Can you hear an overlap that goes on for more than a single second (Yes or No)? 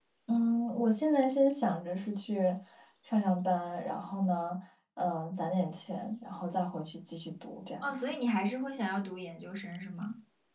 No